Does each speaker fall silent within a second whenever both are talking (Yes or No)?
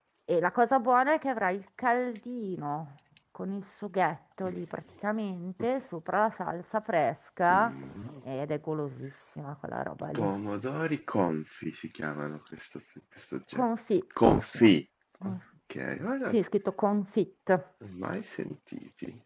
Yes